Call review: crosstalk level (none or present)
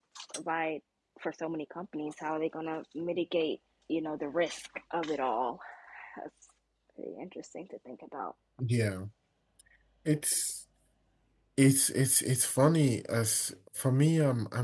none